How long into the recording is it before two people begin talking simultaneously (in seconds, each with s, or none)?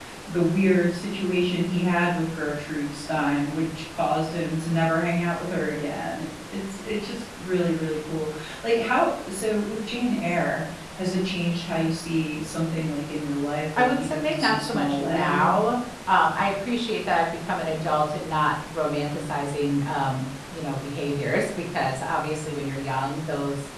13.8 s